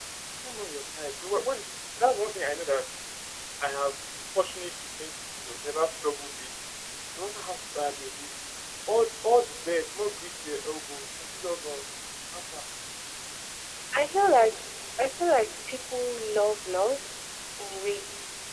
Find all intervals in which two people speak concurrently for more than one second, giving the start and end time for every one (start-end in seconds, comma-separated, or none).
none